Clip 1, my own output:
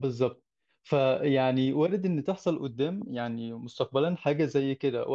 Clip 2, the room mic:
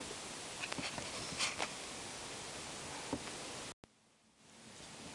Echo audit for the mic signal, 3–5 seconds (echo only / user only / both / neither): neither